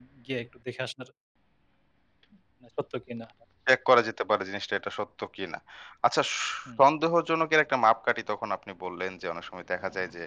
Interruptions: none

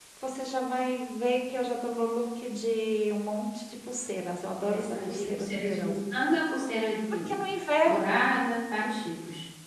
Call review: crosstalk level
present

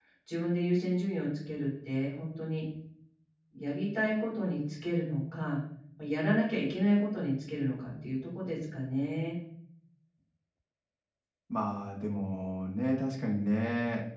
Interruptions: none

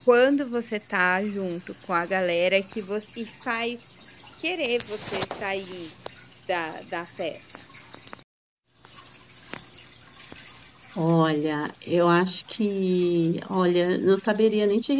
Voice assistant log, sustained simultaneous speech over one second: none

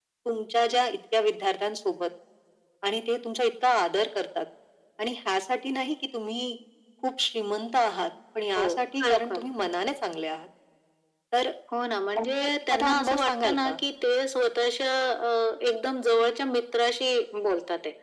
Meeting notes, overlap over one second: present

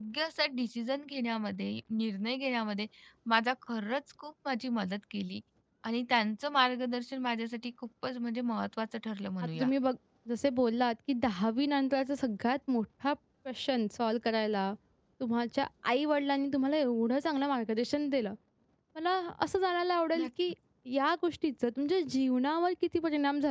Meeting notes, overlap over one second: none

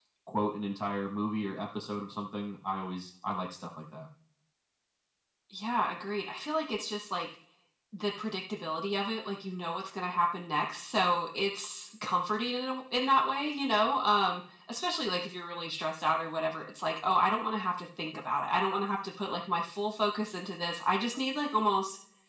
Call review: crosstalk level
none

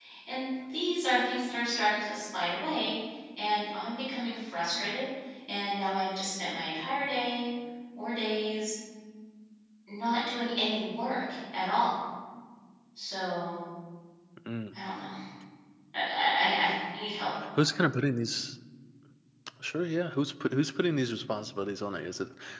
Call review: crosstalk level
none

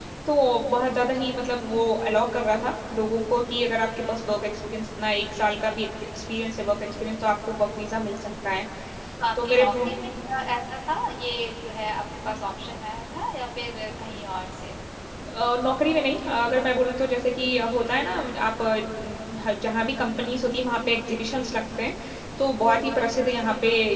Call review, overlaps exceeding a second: none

